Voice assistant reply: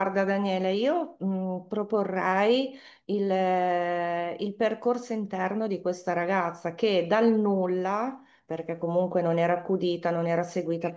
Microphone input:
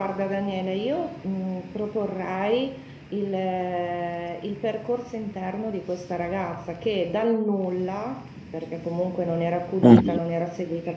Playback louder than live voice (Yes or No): No